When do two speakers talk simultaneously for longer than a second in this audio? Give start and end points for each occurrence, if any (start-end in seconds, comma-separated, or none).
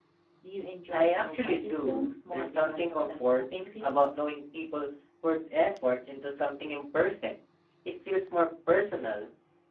0.9-4.0